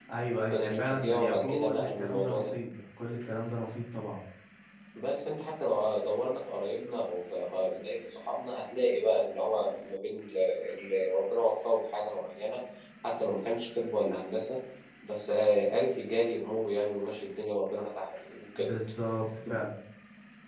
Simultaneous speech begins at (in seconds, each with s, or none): 0.5 s